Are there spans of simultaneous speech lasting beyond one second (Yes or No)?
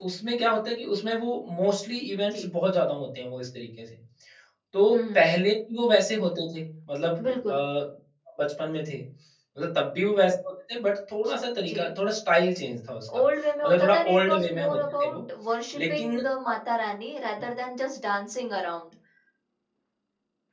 Yes